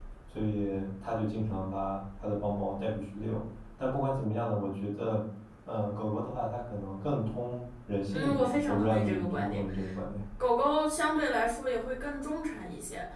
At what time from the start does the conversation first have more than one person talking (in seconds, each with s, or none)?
8.1 s